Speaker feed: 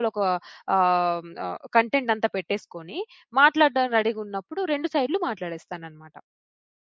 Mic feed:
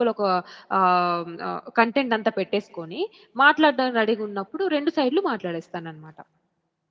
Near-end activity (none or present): none